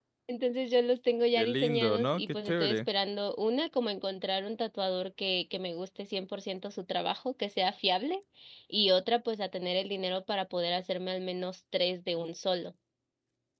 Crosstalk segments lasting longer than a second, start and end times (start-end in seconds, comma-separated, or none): 1.4-2.8